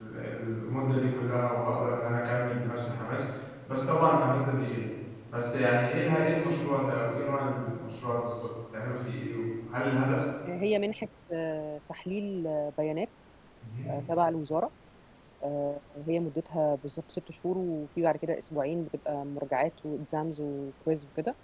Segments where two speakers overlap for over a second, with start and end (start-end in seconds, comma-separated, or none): none